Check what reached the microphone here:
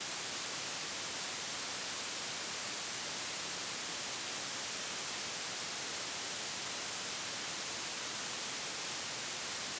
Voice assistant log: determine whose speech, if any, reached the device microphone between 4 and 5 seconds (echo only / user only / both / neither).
neither